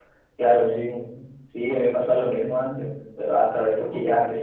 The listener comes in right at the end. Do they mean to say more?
No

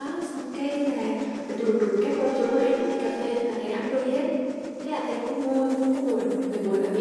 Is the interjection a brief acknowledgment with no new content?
Yes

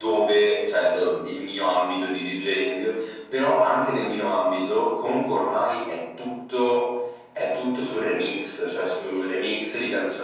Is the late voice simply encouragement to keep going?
Yes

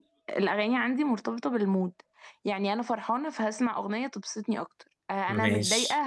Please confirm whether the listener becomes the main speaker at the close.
No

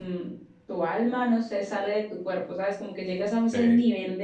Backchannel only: Yes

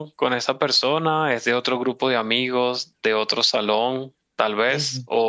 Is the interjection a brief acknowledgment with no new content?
Yes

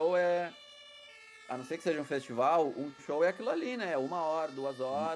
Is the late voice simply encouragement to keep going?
Yes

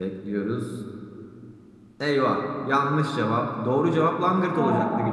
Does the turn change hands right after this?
No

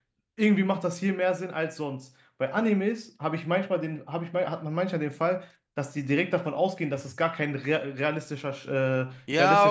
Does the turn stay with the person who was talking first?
No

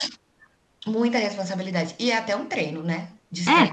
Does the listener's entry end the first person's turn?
No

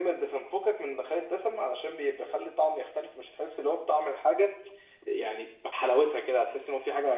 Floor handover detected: No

